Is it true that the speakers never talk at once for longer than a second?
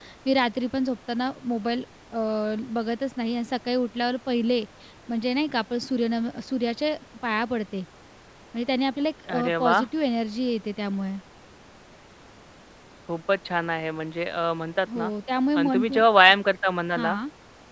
Yes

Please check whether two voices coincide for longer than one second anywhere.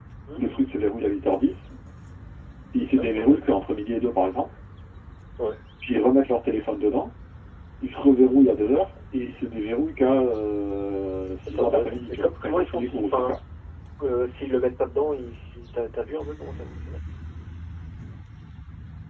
Yes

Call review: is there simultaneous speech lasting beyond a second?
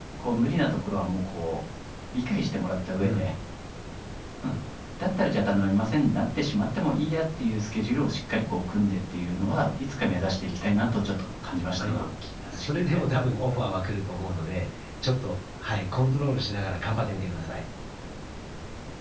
No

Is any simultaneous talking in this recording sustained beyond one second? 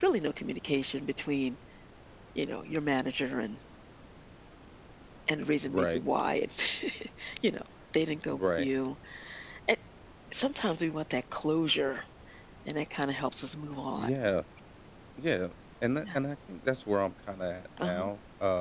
No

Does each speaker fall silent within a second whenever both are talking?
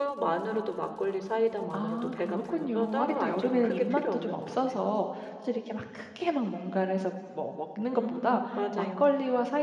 No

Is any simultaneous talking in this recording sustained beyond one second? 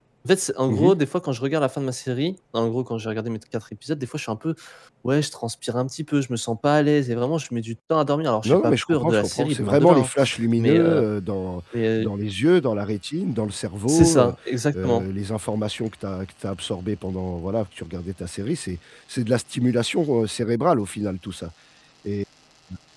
Yes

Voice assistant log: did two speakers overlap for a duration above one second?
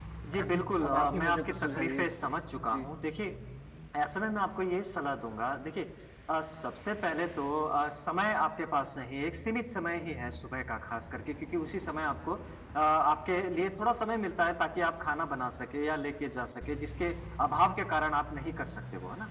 Yes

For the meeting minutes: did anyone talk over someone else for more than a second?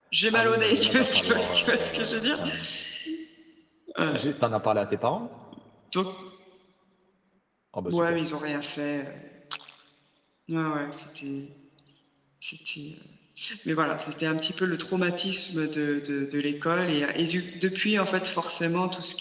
Yes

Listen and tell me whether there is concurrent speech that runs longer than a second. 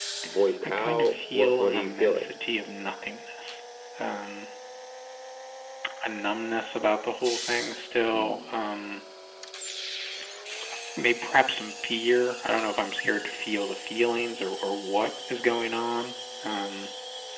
Yes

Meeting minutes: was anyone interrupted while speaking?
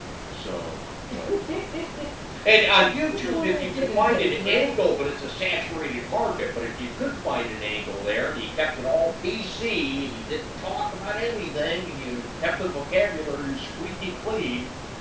Yes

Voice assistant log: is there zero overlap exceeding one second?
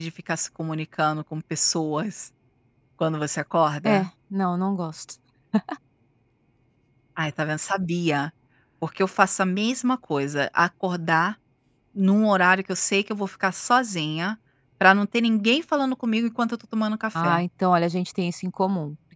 Yes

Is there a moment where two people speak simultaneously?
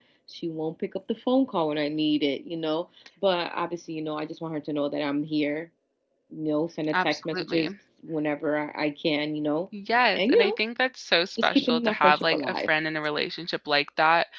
Yes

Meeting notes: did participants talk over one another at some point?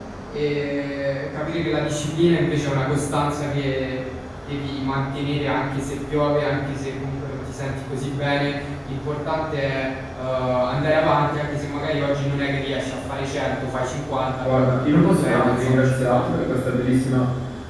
Yes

